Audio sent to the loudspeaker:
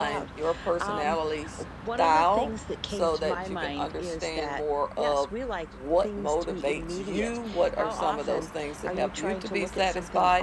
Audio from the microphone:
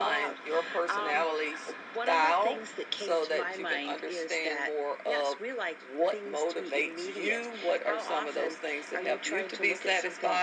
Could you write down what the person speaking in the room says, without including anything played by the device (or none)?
none